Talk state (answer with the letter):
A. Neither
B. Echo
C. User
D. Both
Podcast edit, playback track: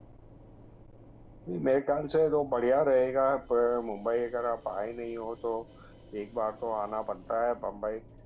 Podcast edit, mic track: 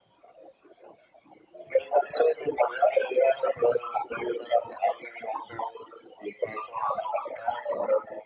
B